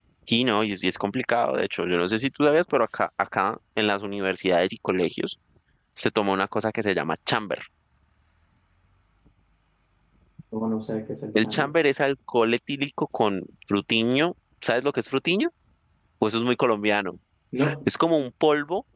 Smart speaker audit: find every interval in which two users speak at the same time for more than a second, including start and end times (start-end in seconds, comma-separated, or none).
none